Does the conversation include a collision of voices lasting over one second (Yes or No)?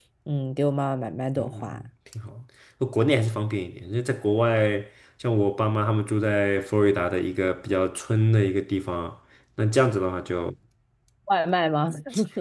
No